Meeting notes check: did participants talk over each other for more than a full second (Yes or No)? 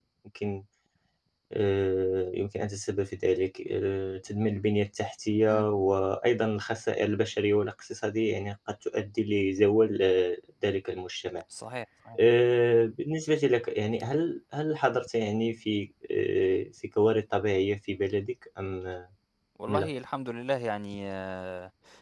No